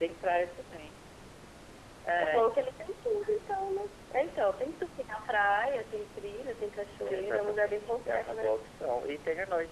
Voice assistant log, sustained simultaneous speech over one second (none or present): present